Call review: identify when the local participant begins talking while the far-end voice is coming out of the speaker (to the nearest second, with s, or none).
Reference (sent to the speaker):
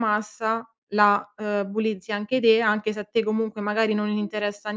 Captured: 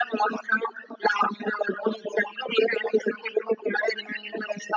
none